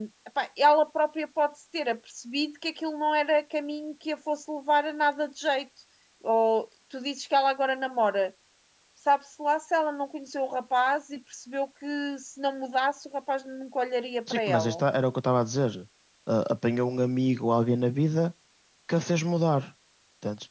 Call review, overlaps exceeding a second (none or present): none